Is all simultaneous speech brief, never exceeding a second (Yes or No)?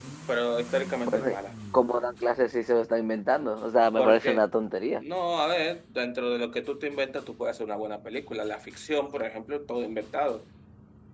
Yes